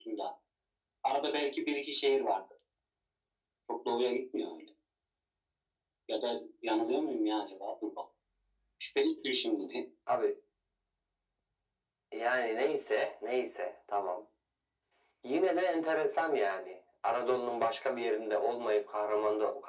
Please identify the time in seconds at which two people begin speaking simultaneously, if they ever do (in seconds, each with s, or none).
none